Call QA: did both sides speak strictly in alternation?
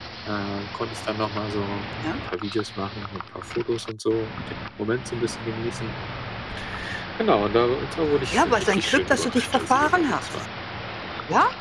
No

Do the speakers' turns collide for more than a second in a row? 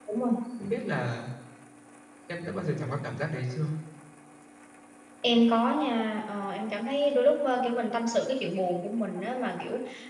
No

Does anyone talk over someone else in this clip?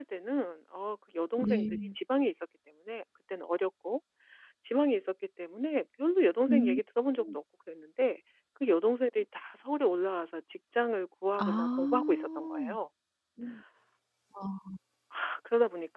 Yes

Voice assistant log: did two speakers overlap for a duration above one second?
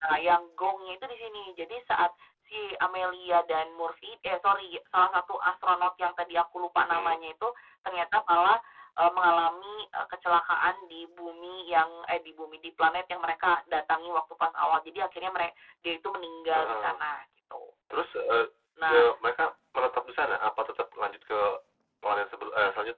No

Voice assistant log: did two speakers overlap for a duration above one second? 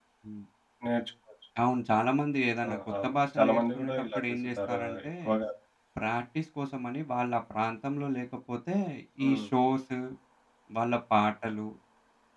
Yes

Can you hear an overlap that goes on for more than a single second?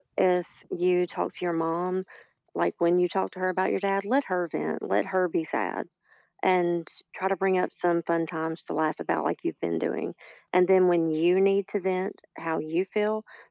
No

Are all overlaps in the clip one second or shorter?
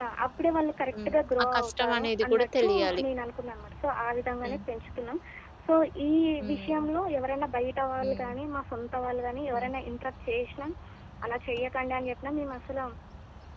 No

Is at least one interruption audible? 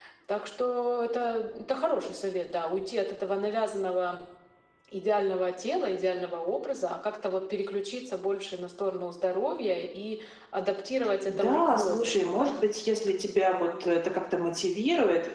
Yes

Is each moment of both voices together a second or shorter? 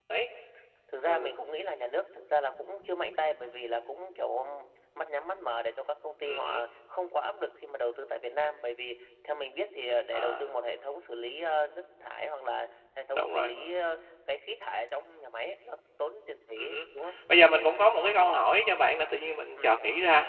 Yes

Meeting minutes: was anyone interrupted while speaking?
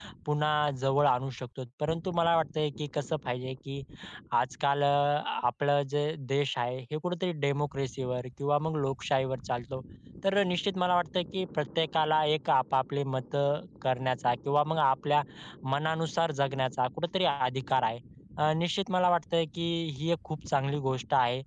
No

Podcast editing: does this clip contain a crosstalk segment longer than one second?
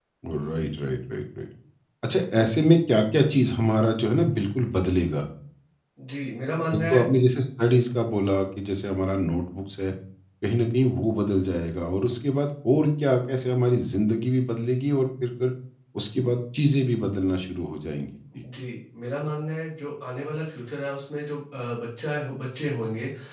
No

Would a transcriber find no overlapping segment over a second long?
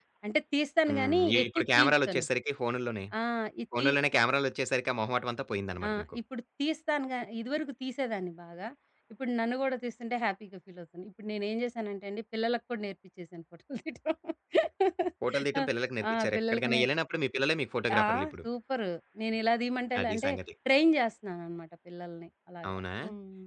No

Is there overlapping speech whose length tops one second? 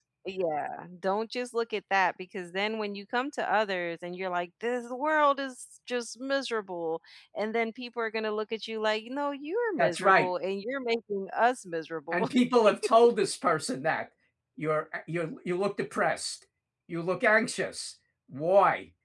No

